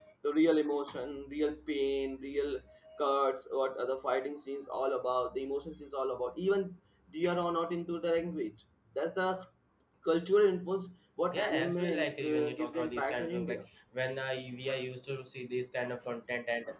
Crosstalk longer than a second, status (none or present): present